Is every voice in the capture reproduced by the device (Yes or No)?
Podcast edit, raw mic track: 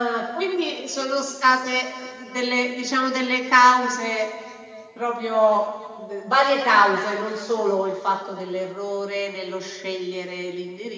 Yes